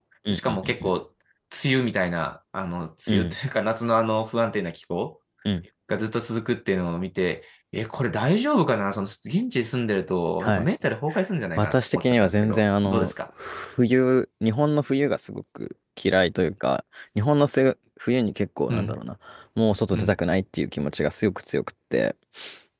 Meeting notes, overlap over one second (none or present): present